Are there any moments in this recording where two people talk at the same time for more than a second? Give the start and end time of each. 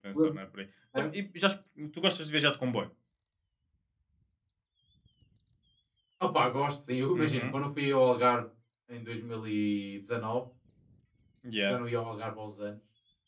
none

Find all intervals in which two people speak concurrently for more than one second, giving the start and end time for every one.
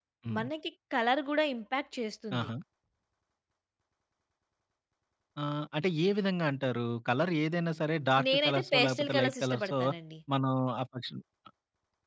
8.2-9.7

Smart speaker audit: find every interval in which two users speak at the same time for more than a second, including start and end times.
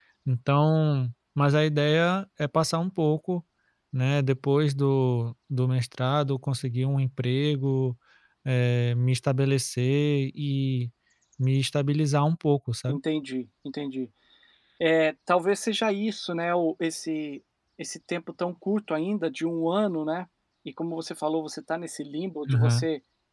none

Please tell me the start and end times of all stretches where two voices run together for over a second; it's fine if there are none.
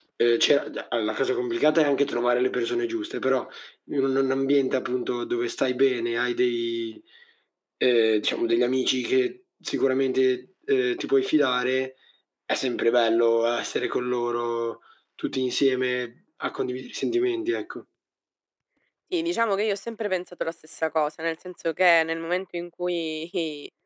none

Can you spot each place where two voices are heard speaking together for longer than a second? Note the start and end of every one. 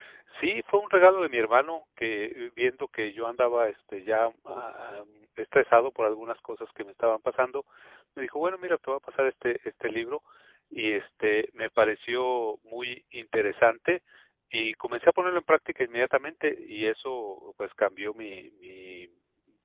none

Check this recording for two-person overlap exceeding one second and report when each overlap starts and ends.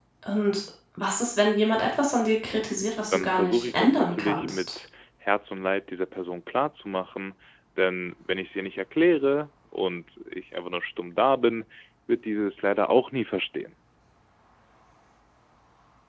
3.1-4.8

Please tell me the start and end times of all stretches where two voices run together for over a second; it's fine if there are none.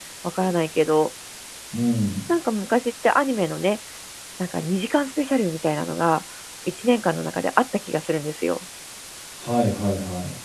none

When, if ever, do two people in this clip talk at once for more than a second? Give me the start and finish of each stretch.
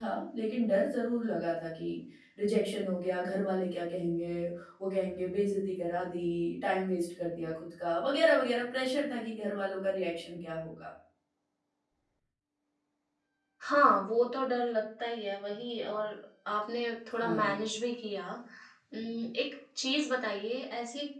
none

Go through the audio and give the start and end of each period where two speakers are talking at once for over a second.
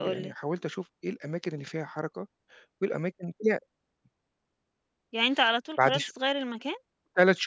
none

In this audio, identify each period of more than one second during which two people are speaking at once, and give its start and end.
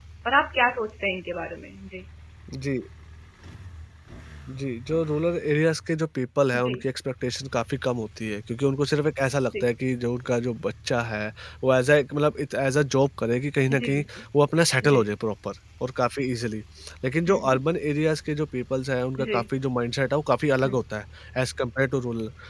none

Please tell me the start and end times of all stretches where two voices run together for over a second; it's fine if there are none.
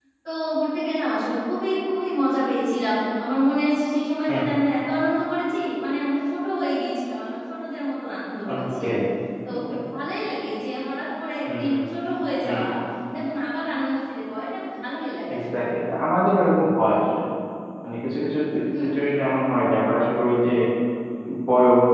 none

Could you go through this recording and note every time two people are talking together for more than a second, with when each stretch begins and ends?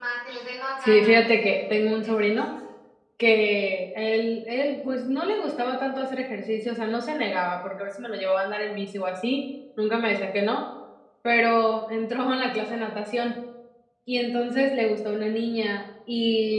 0.8-2.4

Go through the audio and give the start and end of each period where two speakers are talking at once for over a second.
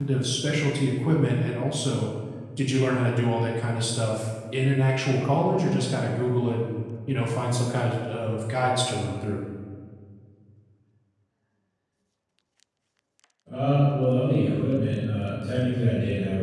none

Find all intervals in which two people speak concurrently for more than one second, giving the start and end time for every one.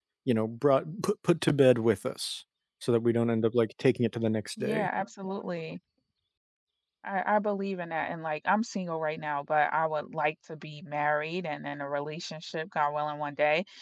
none

